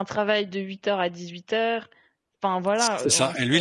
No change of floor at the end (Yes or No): No